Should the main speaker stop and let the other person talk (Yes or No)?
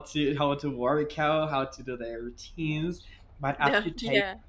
No